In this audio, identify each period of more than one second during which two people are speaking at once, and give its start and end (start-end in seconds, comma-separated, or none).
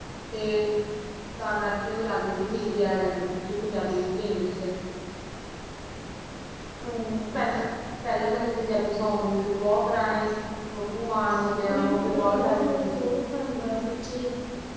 11.7-13.2